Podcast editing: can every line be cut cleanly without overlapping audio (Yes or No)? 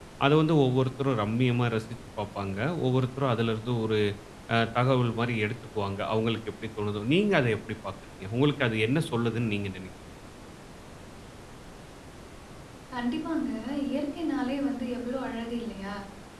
Yes